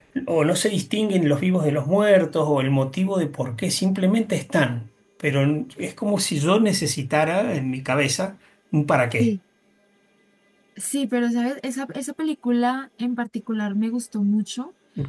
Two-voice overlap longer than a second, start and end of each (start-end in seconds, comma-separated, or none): none